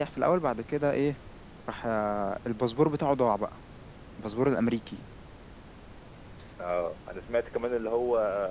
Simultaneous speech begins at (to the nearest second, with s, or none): none